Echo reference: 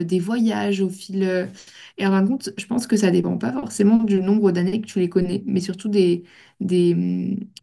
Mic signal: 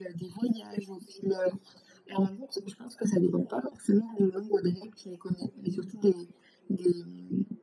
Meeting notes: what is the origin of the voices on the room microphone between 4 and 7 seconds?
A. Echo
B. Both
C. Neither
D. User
A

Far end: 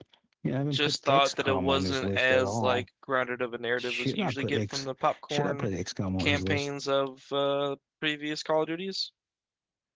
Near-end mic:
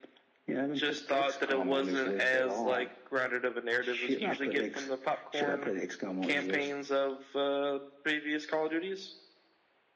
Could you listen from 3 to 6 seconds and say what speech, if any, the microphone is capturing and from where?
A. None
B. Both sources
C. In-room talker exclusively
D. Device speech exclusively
D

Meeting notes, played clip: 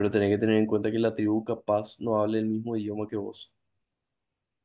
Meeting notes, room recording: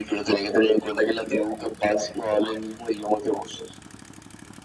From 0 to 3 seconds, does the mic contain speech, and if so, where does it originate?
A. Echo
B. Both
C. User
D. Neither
A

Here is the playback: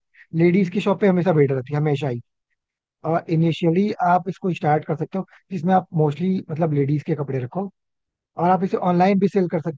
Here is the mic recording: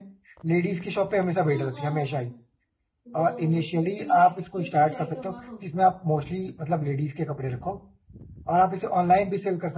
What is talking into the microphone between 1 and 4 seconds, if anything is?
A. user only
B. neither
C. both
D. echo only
C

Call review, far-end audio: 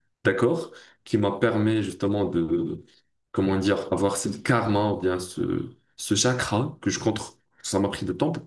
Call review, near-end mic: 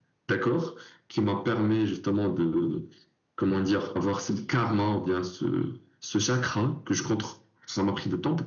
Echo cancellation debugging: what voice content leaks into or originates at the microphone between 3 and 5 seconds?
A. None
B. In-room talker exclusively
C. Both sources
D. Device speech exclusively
D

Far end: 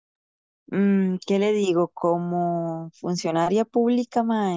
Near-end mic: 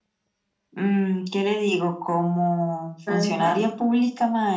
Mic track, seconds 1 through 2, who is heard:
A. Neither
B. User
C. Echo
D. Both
C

